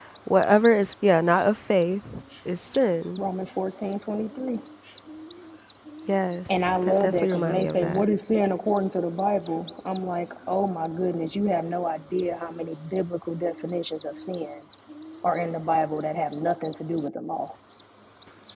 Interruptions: present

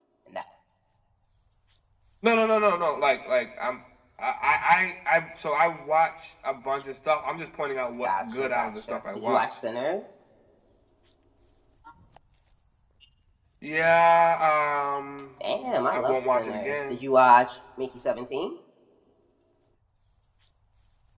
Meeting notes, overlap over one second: present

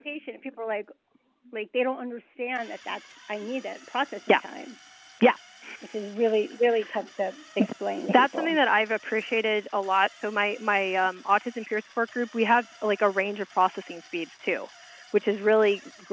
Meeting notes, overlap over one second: none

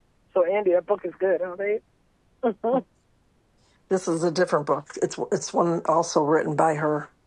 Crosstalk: none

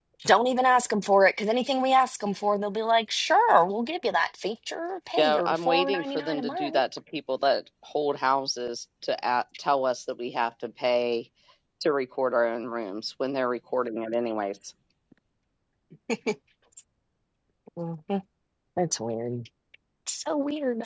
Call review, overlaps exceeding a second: present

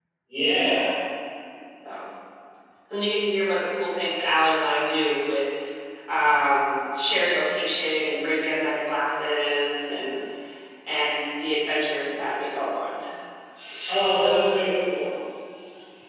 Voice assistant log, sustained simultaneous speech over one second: none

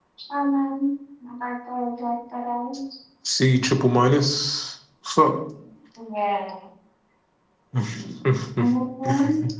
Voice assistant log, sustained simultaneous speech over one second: none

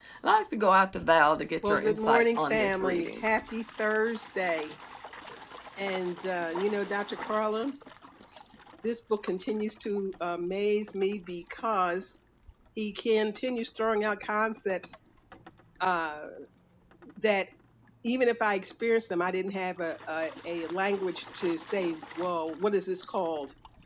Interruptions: present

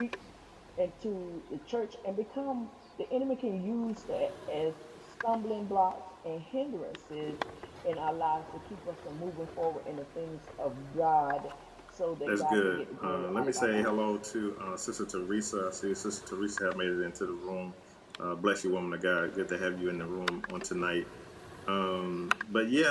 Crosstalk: present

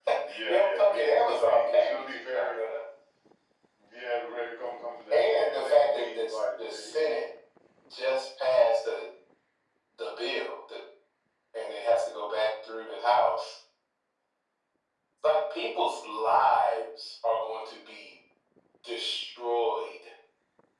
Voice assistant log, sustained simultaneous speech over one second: present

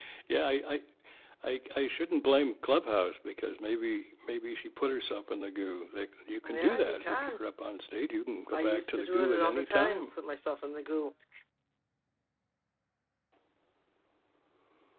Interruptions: present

